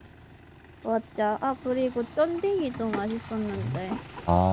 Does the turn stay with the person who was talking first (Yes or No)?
No